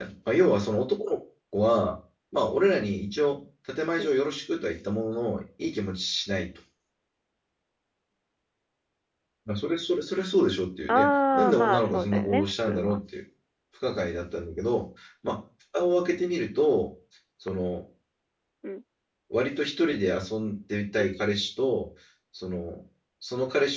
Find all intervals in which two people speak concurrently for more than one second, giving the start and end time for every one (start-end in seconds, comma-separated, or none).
10.9-13.0